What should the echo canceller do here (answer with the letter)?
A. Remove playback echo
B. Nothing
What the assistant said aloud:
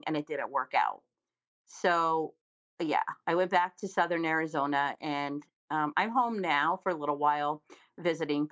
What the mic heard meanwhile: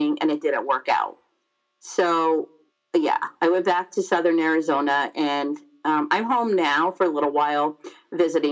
A